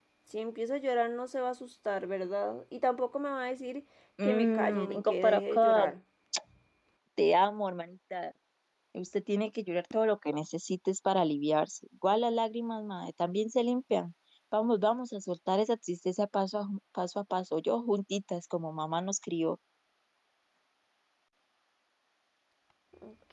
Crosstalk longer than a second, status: present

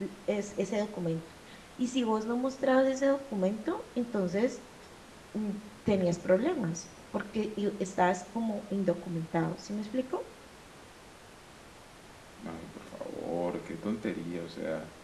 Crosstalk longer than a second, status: none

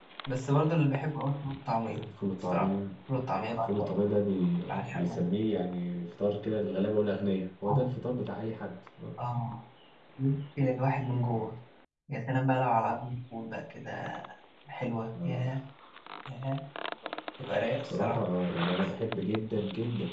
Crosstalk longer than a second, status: none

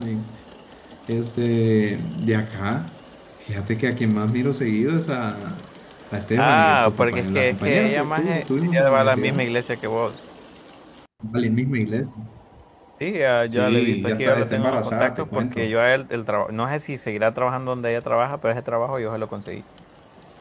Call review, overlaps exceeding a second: present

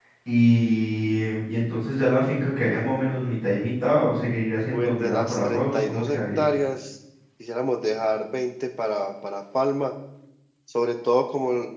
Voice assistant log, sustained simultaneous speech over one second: present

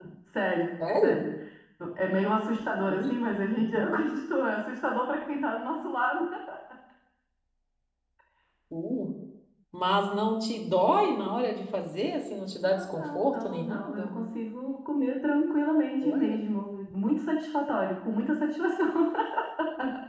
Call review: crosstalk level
present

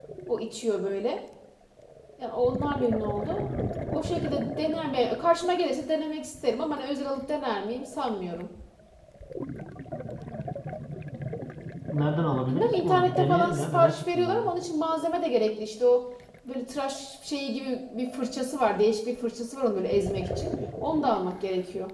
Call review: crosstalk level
present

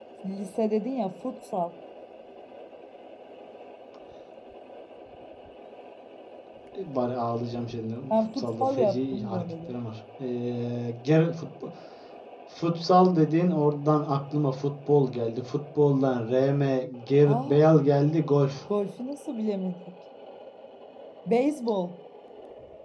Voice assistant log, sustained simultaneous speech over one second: present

